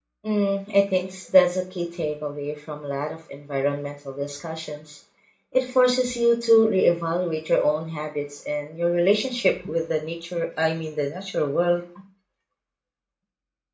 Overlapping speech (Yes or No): No